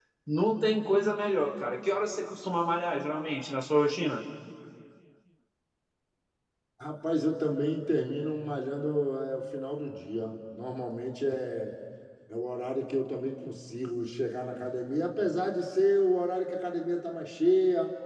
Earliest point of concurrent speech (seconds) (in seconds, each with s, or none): none